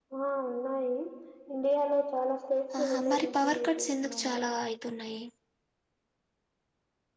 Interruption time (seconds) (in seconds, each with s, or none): 2.7 s